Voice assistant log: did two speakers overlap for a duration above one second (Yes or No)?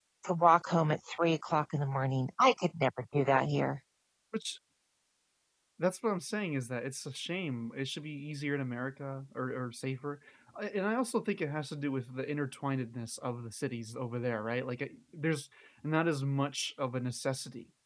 No